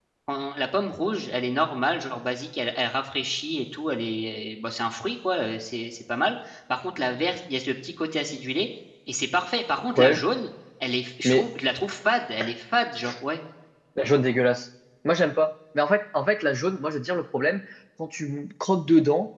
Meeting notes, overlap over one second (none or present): none